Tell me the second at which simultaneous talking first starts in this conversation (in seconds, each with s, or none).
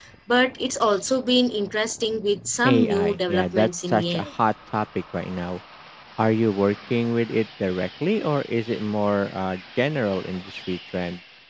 2.6 s